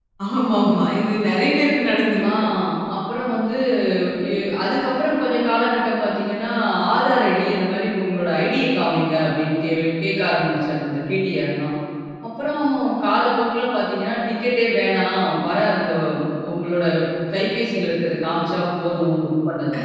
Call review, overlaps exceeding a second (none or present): none